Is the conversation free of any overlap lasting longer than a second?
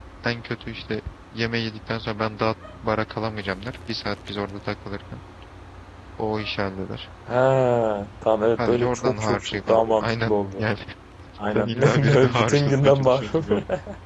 No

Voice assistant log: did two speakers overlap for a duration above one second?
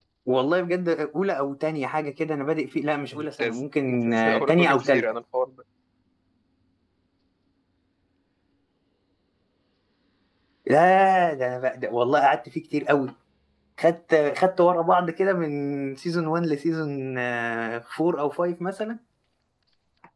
Yes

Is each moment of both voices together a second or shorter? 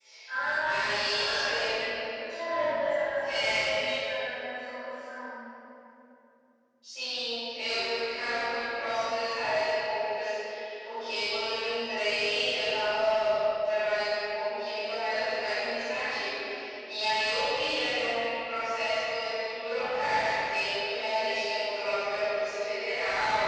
No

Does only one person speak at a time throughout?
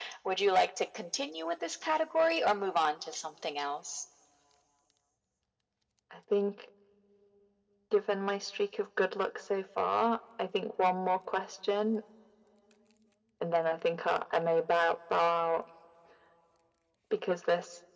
Yes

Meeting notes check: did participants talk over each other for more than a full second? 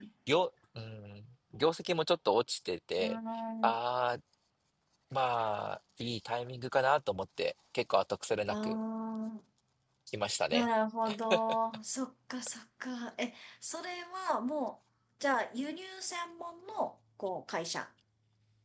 No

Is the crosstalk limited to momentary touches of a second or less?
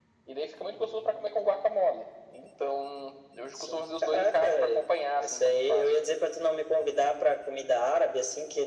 No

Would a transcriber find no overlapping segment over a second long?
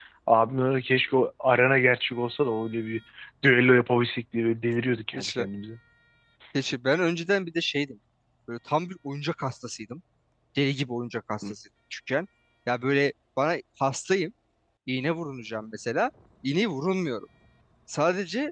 Yes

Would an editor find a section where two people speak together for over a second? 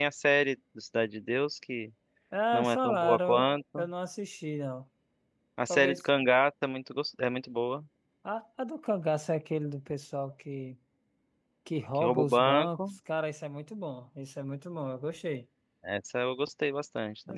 Yes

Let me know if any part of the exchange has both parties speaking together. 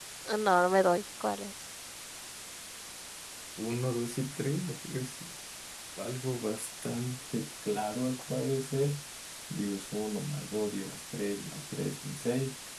No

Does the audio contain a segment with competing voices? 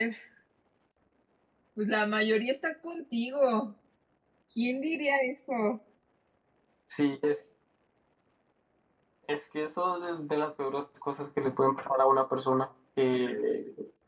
No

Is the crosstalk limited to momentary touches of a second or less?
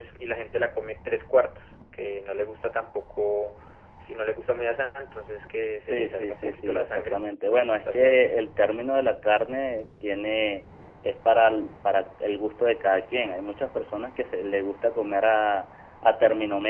No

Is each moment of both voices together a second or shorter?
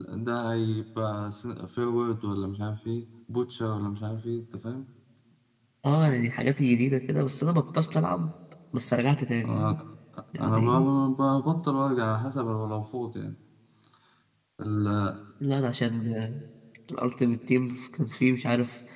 Yes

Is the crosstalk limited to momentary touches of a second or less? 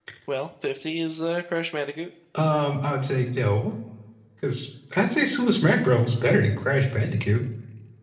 Yes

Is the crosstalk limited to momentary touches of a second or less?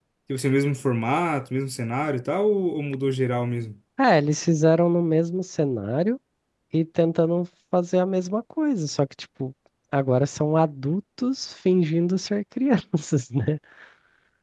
Yes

